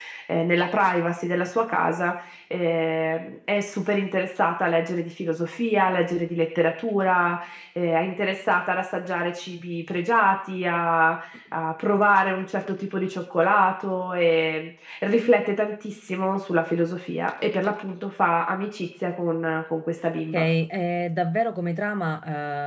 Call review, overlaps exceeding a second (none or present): none